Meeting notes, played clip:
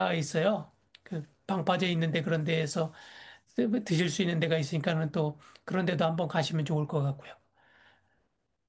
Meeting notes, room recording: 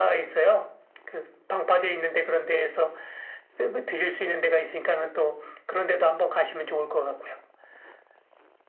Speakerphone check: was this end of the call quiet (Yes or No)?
Yes